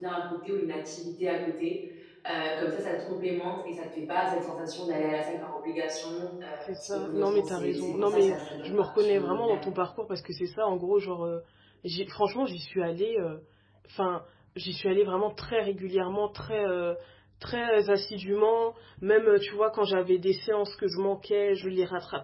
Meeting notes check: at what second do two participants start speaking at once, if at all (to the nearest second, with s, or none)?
7 s